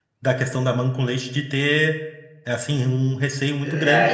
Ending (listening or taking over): taking over